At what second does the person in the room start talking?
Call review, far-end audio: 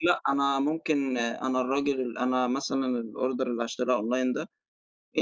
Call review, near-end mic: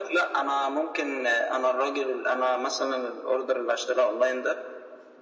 none

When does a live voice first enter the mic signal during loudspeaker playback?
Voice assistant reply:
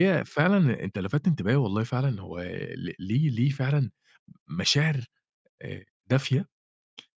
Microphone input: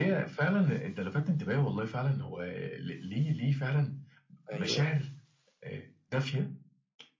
5 s

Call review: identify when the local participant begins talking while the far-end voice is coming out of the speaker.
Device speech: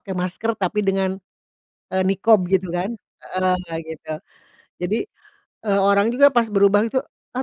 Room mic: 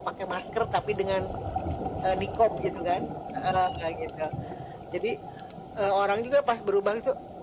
none

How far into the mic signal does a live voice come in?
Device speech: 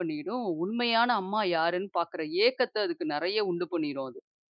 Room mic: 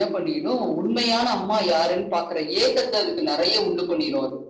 none

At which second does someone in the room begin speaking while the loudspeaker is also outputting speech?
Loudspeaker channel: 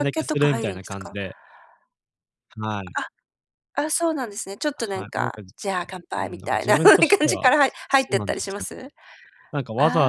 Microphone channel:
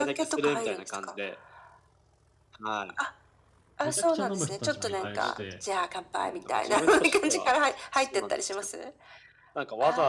4 s

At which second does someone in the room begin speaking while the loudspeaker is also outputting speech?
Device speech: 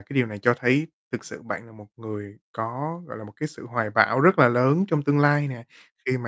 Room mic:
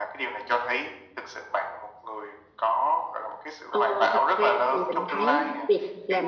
4 s

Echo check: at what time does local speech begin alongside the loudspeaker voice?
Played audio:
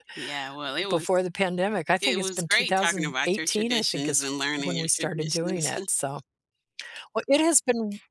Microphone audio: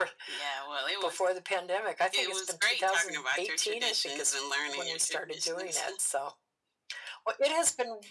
none

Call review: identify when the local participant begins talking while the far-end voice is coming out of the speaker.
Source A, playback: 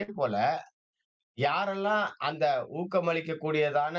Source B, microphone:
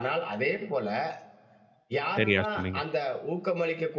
2 s

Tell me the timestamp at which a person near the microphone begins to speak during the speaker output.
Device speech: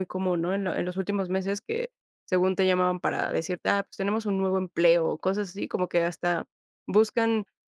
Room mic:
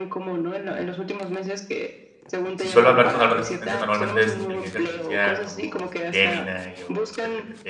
3 s

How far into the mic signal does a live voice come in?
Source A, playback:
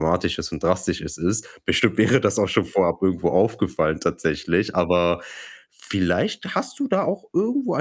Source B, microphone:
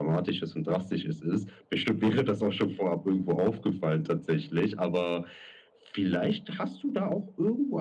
none

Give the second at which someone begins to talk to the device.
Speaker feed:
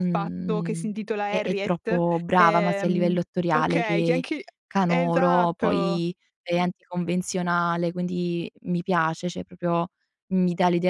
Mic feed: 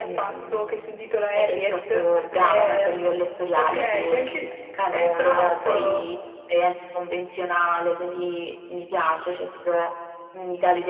none

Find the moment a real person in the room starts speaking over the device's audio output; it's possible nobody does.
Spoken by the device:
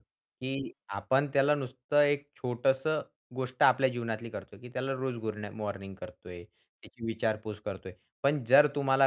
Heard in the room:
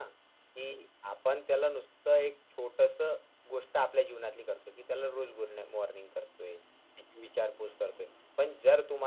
none

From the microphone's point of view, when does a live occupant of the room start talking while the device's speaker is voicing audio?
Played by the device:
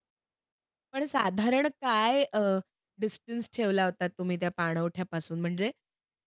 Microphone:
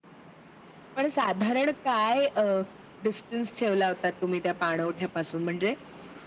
none

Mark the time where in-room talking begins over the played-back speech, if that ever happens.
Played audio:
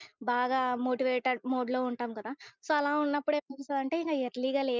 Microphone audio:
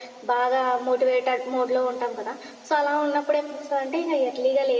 none

